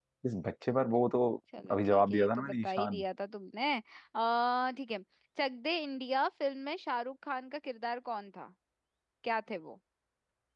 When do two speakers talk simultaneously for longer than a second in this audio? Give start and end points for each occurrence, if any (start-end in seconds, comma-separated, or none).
1.7-3.0